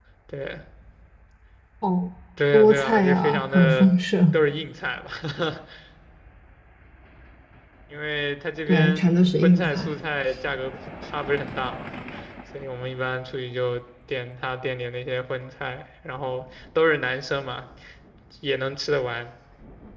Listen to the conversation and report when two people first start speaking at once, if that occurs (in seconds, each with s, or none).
2.5 s